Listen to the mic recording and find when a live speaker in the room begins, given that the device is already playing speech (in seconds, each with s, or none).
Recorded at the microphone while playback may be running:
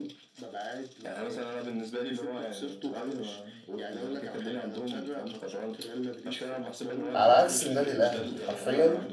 7.1 s